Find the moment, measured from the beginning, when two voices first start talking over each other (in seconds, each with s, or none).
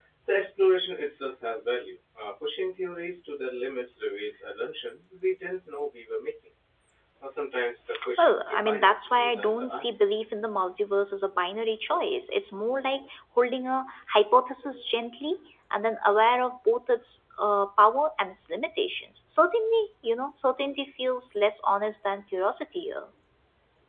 8.2 s